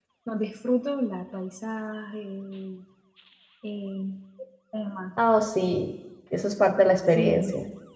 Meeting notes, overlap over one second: none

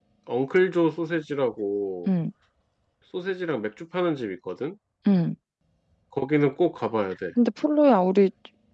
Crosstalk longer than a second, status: none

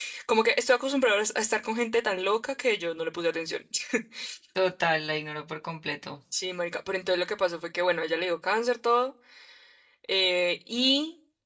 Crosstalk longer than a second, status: none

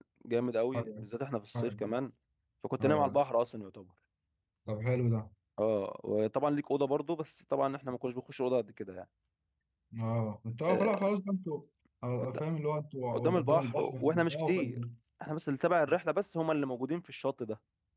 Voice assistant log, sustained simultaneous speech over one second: present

